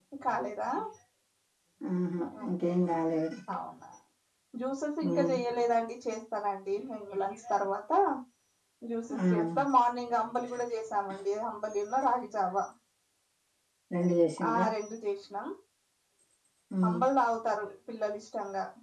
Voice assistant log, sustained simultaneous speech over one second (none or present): none